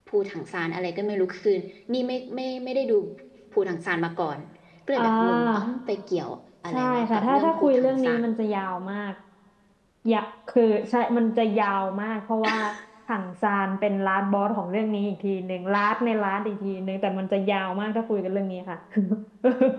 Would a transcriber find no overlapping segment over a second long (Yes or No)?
No